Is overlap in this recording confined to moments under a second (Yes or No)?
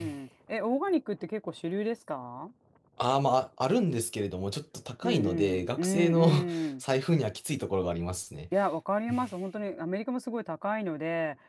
No